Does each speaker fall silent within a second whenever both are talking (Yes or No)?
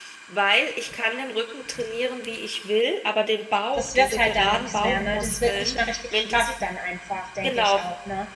No